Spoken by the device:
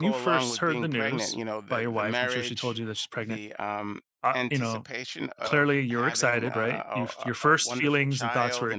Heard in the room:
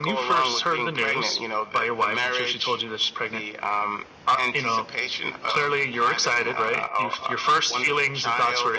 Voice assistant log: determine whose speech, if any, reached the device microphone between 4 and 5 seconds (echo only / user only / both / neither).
echo only